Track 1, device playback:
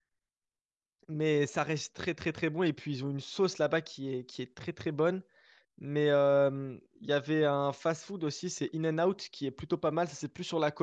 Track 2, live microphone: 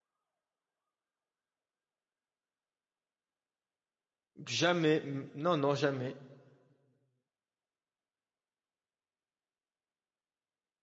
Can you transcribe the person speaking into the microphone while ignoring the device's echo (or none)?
Jamais. Mm, Non, non, jamais.